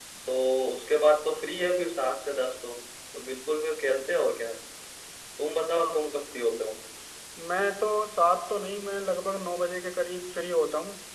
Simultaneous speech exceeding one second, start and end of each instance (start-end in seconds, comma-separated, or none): none